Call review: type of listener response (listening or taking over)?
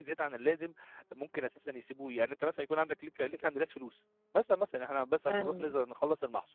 listening